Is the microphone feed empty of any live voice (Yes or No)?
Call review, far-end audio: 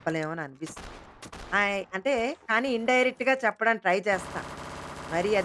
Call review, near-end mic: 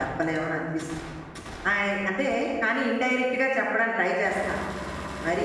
Yes